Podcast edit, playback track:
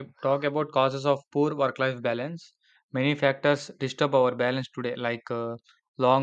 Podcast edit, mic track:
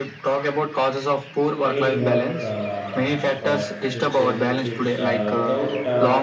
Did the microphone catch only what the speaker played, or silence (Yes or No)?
No